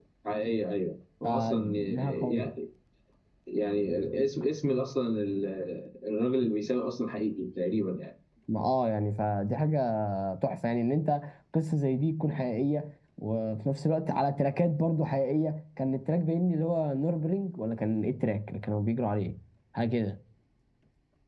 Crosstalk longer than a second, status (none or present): present